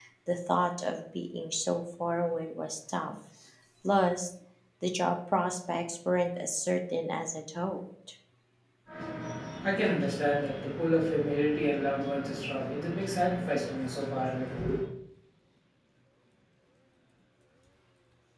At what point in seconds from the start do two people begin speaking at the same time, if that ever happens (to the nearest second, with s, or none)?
none